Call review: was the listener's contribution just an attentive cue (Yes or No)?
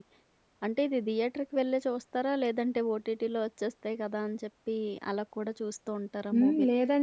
No